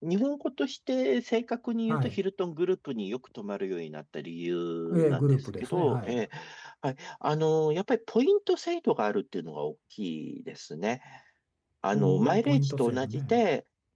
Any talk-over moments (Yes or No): Yes